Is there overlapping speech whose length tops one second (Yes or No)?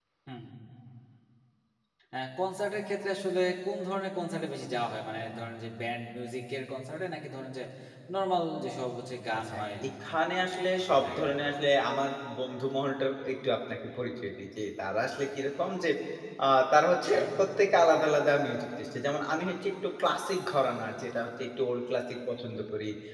No